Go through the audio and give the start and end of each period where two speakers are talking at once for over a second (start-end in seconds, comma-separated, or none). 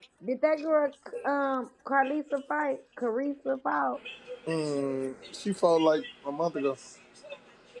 none